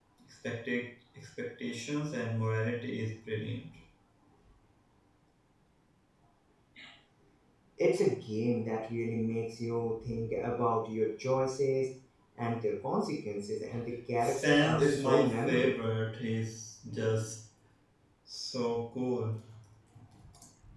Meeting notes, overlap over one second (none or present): present